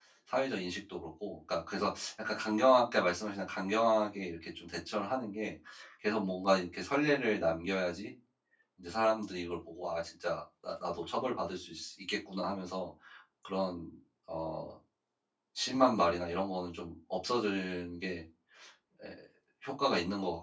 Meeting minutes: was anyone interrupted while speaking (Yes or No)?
No